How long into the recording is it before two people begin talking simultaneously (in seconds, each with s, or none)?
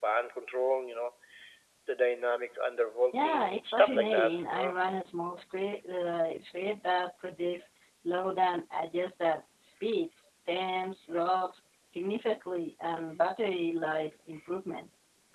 3.1 s